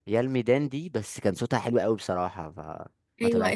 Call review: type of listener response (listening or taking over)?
taking over